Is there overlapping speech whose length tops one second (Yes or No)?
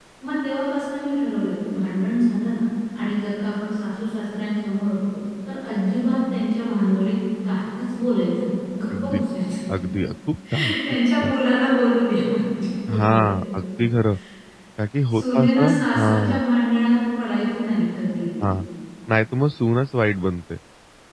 Yes